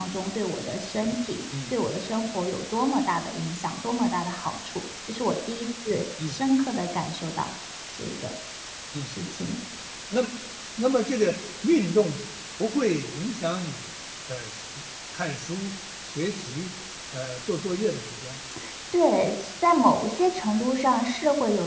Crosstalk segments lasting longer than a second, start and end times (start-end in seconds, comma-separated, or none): none